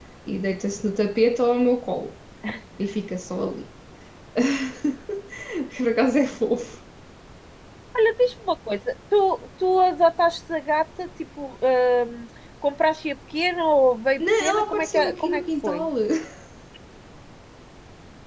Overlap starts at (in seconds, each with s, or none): 14.2 s